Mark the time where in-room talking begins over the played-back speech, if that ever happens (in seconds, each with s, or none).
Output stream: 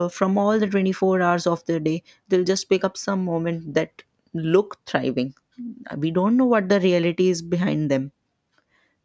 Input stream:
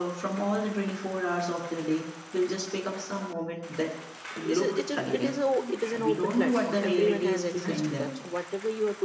4.4 s